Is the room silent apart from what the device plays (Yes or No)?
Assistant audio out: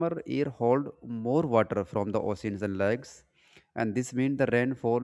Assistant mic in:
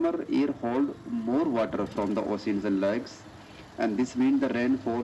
Yes